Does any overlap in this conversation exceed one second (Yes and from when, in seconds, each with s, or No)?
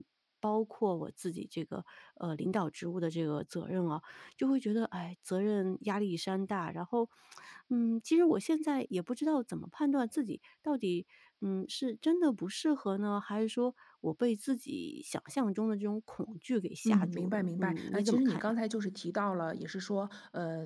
Yes, from 16.8 s